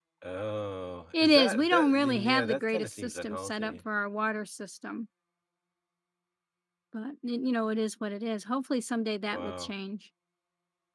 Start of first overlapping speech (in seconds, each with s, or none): 1.1 s